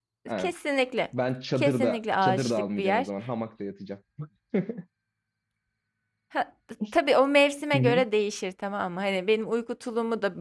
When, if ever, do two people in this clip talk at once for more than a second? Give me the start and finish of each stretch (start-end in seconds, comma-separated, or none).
1.6-3.1